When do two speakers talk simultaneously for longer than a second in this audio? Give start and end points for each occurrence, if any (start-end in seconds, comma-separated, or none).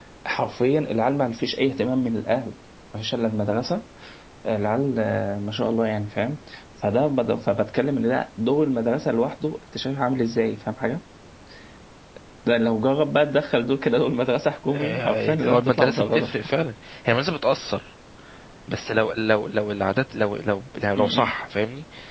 14.7-16.3